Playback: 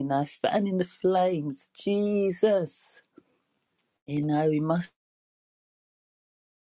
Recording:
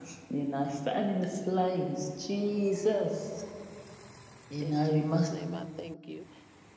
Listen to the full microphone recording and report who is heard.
both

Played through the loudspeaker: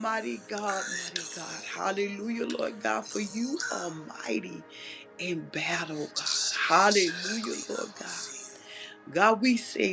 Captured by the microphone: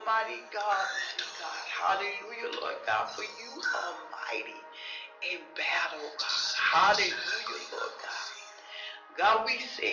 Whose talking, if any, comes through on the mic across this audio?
echo only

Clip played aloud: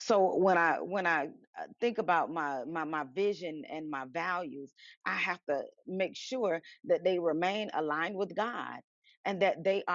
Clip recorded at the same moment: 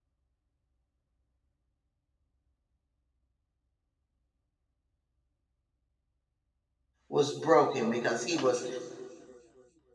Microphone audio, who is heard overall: user only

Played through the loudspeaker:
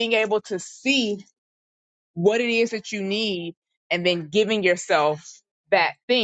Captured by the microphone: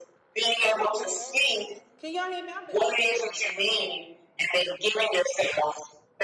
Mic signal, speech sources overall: both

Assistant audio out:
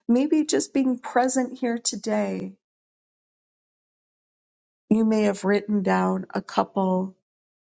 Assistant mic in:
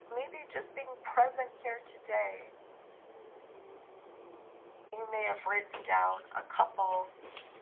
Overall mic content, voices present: echo only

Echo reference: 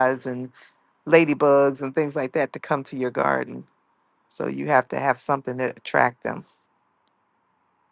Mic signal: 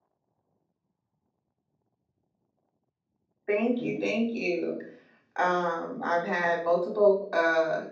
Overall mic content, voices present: user only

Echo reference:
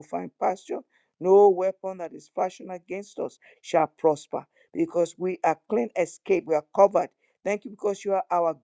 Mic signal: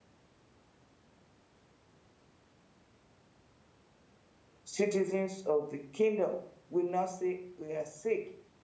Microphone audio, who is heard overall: user only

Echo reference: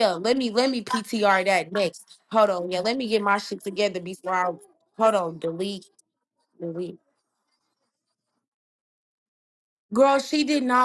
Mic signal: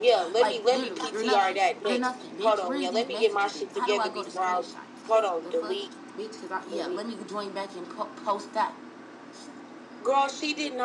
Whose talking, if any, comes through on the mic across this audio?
both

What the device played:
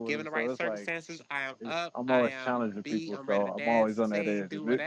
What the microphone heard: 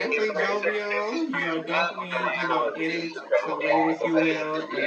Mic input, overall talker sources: both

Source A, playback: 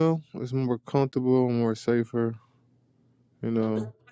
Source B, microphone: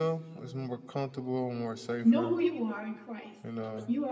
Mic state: both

